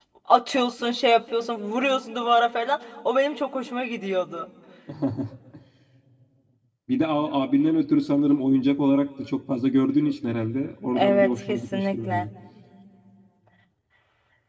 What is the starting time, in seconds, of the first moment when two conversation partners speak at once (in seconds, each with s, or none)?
10.9 s